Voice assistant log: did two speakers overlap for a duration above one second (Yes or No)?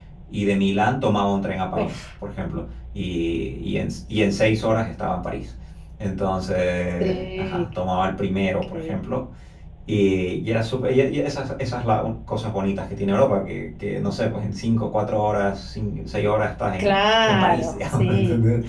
Yes